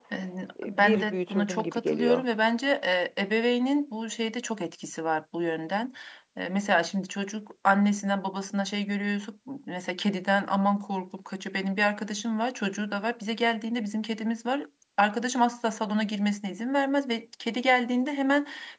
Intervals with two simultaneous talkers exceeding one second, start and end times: 0.7-2.2

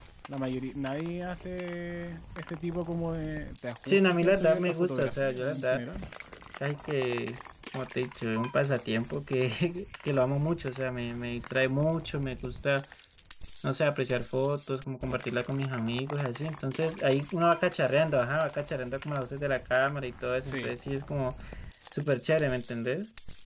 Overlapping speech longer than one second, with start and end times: 3.9-5.8

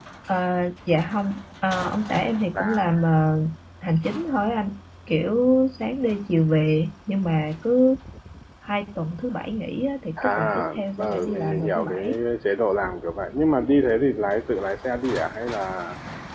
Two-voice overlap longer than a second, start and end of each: 10.2-12.0

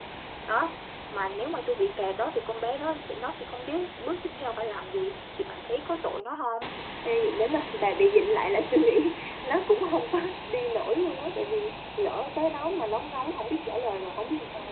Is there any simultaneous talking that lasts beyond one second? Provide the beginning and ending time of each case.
none

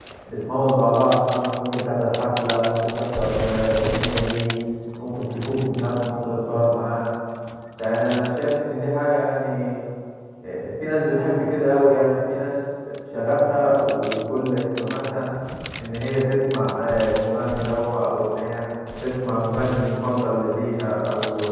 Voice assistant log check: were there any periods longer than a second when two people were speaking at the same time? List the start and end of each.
none

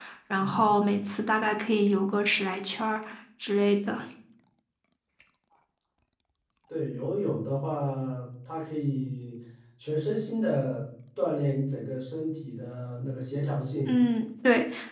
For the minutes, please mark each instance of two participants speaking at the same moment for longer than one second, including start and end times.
none

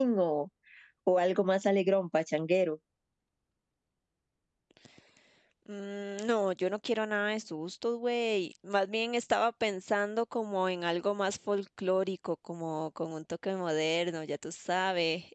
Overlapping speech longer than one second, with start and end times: none

